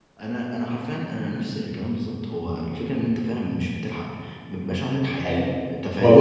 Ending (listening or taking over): taking over